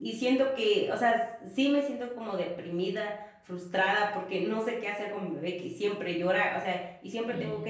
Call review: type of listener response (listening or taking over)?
listening